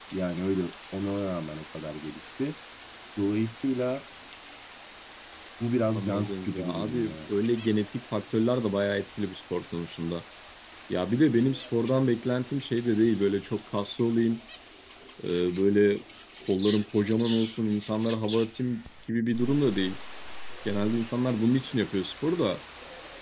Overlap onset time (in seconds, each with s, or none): 5.9 s